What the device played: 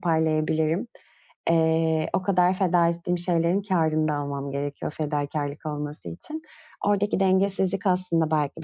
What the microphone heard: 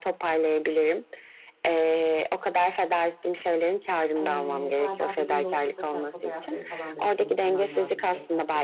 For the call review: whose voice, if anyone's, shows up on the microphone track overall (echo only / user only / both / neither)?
both